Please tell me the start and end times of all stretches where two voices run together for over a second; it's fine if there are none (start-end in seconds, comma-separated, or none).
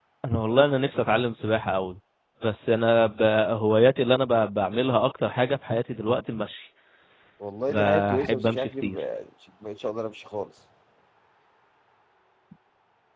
7.7-9.0